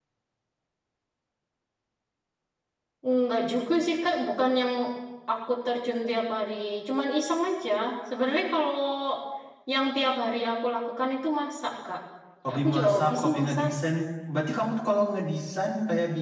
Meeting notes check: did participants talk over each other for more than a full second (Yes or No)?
Yes